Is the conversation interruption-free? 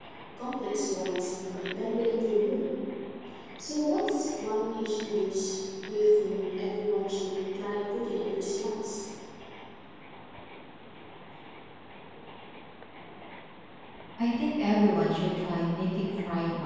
Yes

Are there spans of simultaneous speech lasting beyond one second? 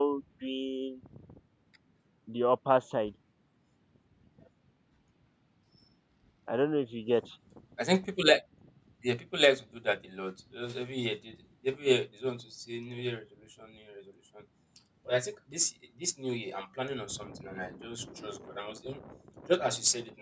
No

